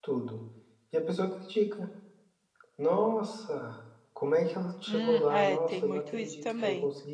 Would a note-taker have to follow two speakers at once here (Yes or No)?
Yes